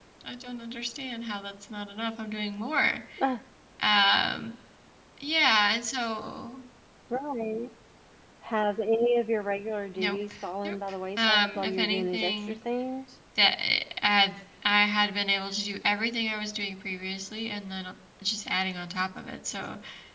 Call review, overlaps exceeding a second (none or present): present